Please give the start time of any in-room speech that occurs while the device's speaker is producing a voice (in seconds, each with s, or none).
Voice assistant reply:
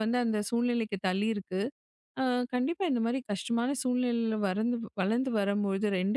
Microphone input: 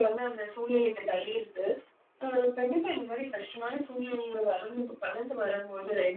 none